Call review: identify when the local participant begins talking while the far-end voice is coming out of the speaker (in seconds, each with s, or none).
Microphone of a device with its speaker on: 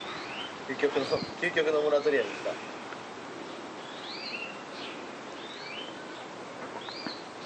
0.7 s